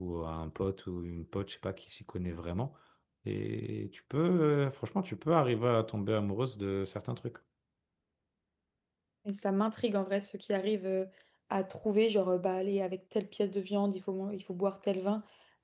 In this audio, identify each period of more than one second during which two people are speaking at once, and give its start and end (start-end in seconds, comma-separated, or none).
none